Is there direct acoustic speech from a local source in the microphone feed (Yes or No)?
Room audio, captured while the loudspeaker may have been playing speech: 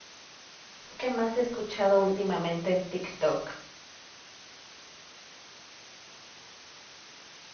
Yes